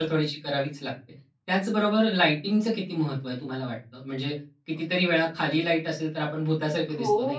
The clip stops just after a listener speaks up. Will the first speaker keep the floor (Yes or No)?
No